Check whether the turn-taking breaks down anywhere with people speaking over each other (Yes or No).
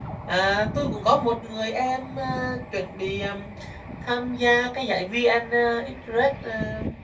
No